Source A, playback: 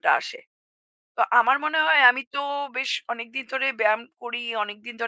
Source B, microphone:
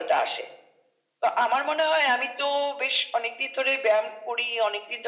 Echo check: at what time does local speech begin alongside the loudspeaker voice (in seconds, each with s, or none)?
none